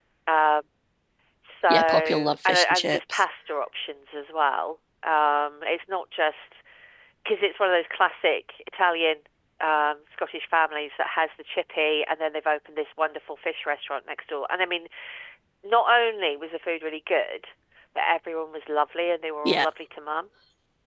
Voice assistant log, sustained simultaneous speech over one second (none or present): present